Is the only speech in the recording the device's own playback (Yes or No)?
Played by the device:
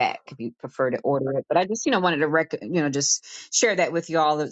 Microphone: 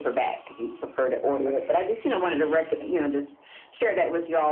Yes